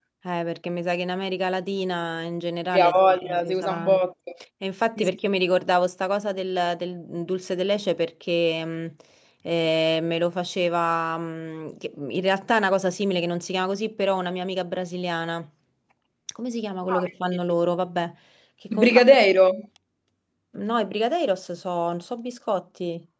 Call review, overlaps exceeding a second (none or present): present